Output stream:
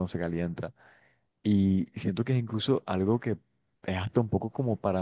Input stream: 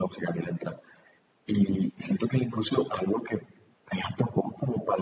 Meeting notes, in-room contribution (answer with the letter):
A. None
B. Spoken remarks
A